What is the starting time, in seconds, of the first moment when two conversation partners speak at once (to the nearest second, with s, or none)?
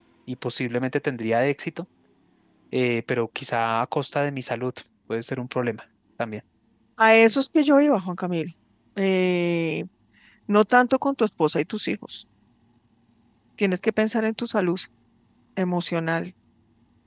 none